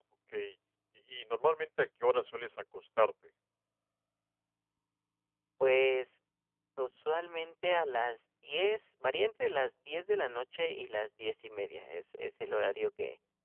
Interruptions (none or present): none